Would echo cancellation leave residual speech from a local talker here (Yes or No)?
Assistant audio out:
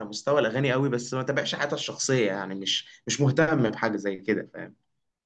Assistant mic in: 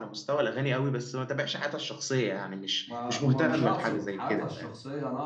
Yes